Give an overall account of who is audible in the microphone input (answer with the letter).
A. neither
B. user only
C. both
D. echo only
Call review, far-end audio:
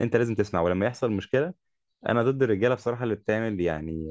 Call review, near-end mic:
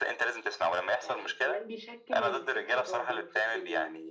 C